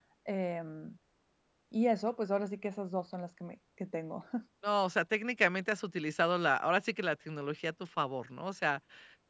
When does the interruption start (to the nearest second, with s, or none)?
none